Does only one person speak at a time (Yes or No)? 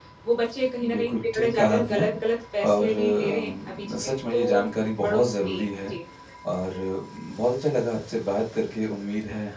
No